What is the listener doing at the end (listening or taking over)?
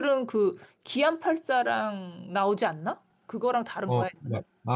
taking over